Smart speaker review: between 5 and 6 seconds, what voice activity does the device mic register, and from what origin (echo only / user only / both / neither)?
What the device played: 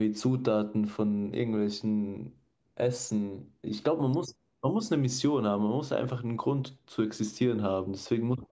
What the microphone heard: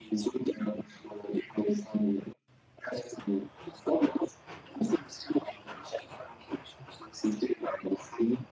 echo only